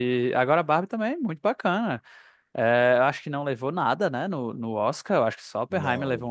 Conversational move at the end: listening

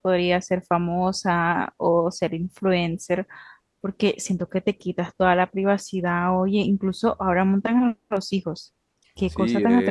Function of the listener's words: taking over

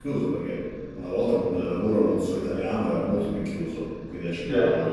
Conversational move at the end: listening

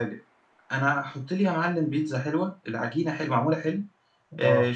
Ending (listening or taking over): listening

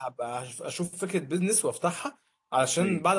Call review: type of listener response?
listening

